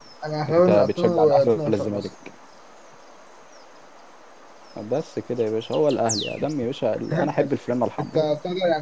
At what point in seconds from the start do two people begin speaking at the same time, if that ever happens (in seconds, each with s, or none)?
0.6 s